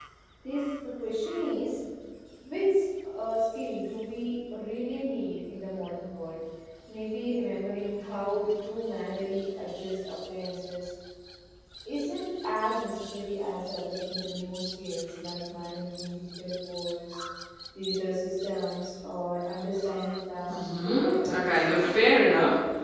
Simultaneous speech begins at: 20.5 s

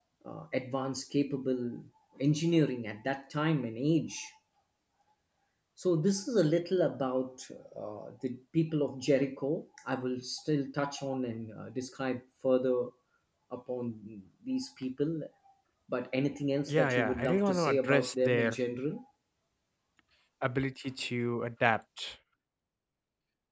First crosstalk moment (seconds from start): 16.7 s

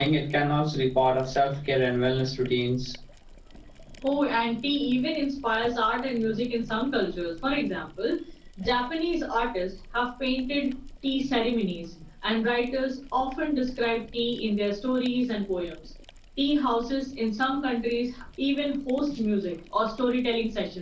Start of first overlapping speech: none

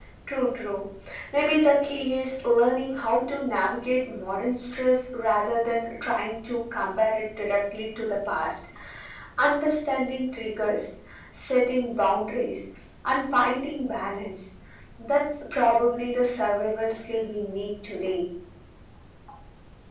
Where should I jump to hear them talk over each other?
none

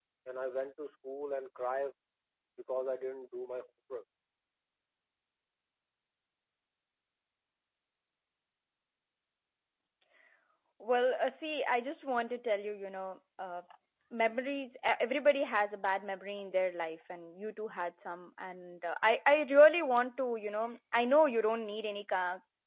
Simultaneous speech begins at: none

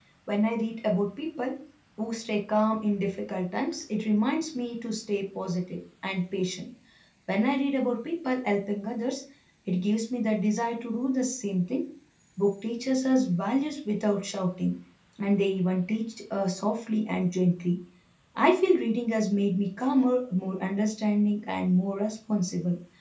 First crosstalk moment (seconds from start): none

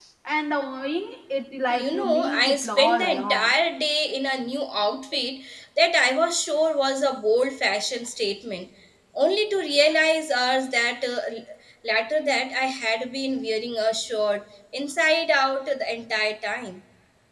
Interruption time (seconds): 1.7 s

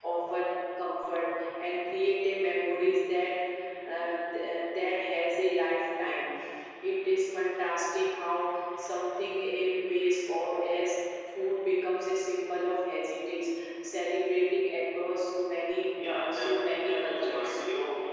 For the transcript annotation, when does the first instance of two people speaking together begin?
15.9 s

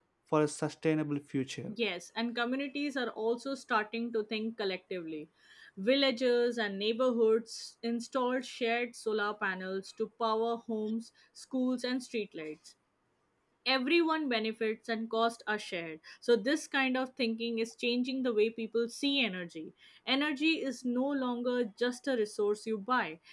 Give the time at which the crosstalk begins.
none

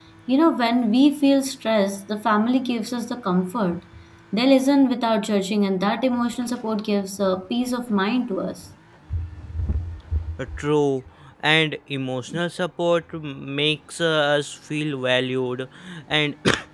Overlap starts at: none

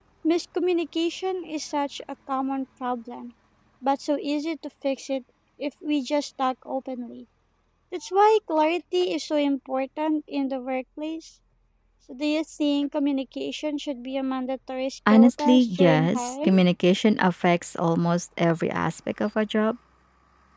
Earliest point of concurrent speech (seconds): 15.1 s

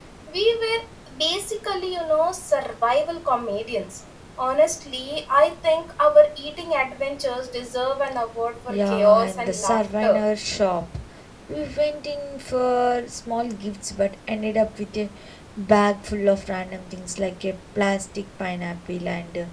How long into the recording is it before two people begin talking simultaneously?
8.7 s

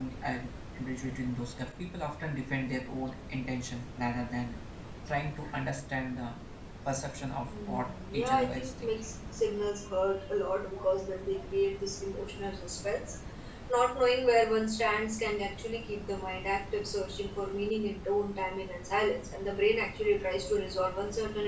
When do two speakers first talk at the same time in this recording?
7.5 s

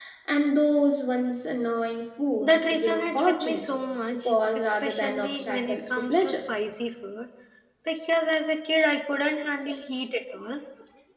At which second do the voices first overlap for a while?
2.4 s

